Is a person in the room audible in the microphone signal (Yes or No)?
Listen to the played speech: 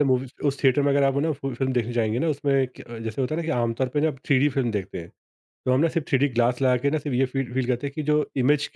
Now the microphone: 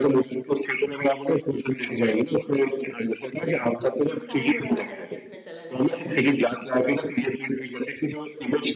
Yes